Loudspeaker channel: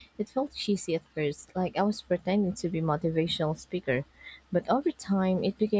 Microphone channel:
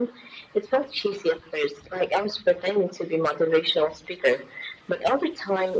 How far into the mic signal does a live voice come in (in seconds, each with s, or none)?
none